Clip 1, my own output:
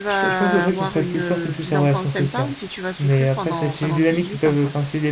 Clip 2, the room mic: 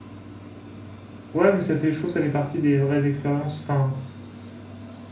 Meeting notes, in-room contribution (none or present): present